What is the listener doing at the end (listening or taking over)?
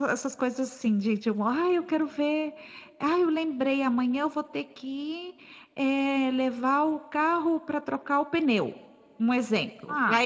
listening